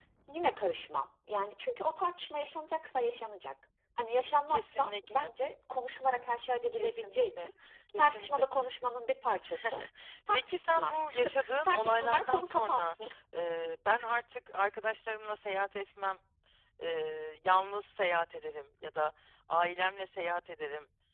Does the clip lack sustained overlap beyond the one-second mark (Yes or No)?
No